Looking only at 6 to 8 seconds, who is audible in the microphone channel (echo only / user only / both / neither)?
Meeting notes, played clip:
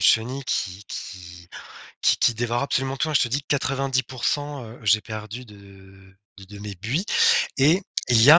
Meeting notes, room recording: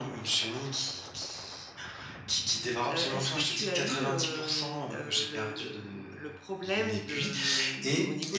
both